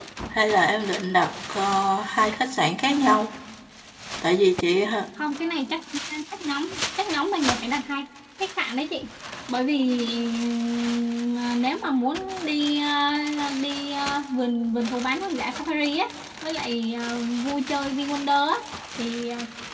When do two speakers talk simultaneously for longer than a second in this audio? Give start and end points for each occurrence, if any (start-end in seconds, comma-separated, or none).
none